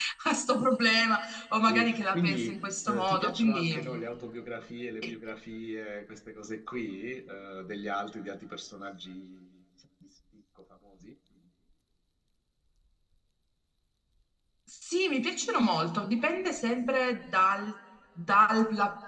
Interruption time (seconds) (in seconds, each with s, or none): 1.7 s